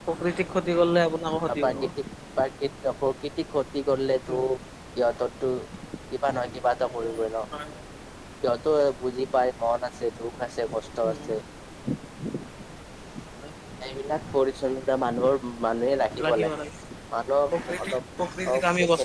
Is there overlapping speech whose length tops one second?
No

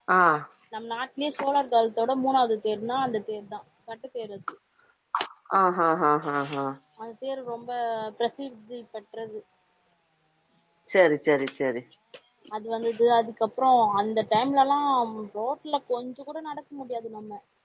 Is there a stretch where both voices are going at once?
No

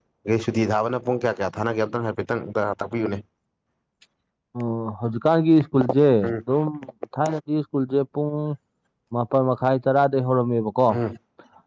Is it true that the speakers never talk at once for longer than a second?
Yes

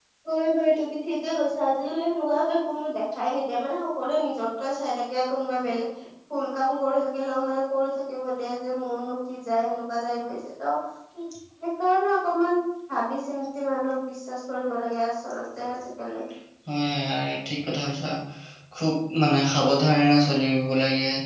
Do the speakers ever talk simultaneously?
No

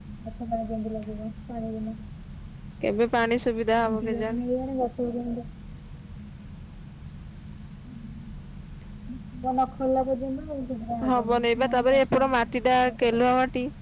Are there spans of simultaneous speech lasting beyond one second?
Yes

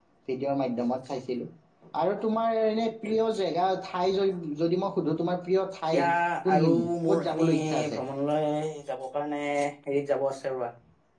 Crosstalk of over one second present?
Yes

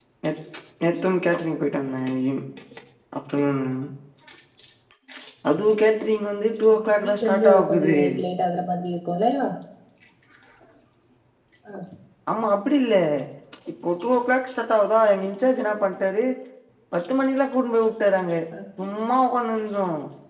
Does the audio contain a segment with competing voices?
Yes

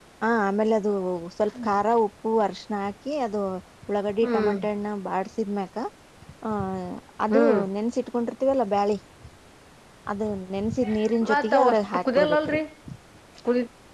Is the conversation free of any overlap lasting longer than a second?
No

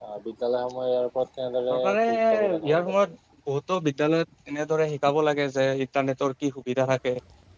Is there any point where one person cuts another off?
Yes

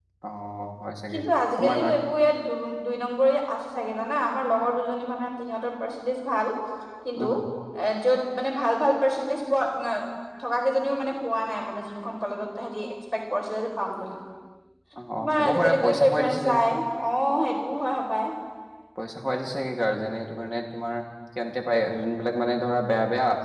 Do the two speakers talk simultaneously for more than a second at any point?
Yes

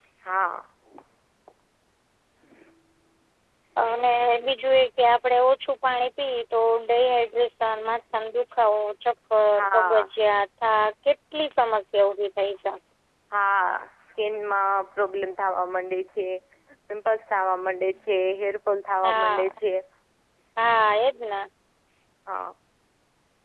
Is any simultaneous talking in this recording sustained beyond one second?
No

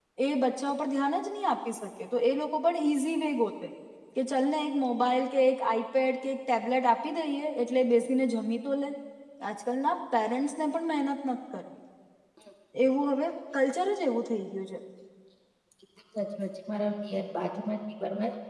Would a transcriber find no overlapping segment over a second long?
Yes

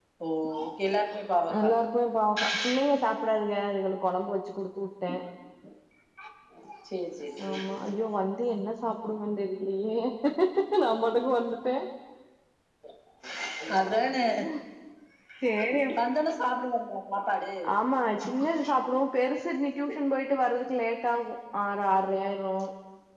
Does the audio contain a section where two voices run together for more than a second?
No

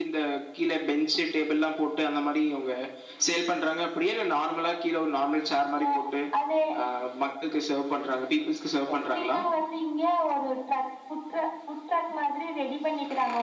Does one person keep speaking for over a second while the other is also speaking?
No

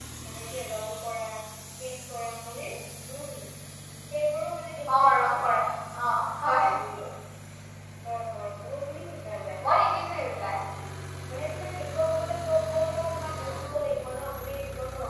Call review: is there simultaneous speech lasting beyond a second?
No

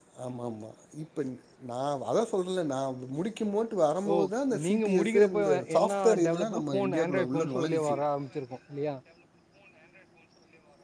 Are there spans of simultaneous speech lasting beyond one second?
Yes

